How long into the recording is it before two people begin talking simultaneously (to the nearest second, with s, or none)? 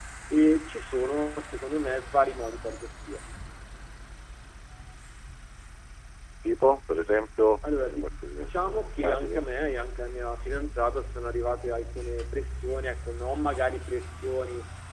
8 s